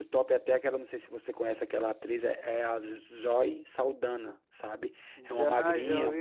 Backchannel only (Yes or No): No